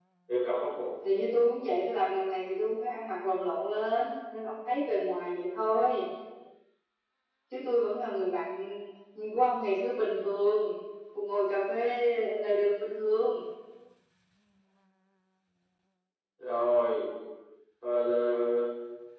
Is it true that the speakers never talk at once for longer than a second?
Yes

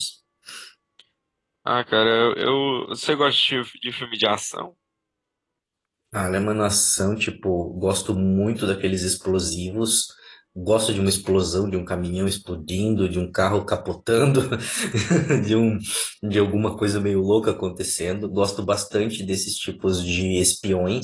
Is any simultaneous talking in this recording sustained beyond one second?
No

